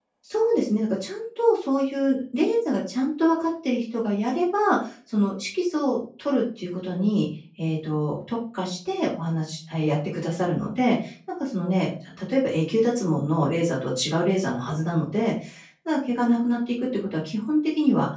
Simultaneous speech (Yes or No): No